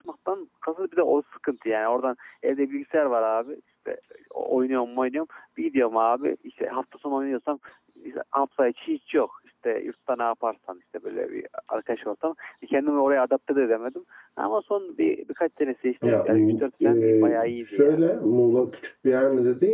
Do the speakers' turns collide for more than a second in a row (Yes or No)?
Yes